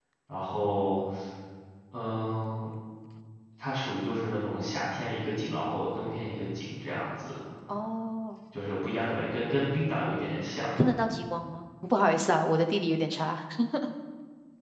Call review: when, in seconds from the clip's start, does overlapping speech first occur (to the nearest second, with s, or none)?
none